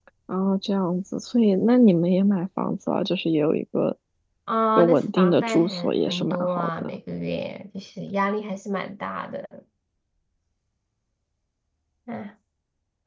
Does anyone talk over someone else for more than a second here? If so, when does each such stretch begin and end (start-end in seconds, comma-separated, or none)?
4.8-7.0